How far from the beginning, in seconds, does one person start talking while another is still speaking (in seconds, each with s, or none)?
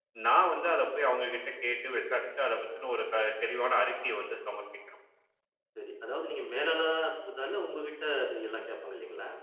none